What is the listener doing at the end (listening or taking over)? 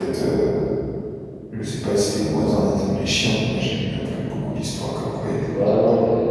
taking over